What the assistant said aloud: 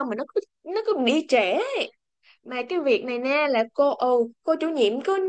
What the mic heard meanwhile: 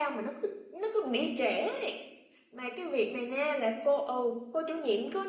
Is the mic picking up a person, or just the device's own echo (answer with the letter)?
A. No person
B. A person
A